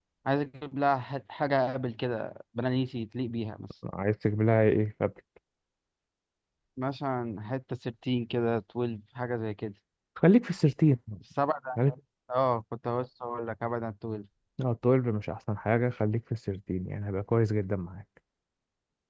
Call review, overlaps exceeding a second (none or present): none